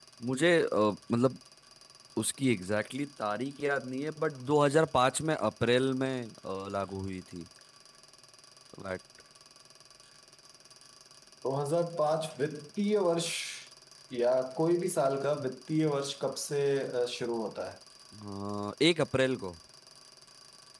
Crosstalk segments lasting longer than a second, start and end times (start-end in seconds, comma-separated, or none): none